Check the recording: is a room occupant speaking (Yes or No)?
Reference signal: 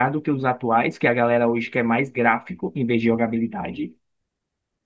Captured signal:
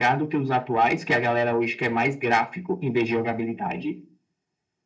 No